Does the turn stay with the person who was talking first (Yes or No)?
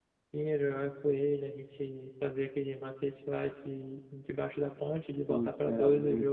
No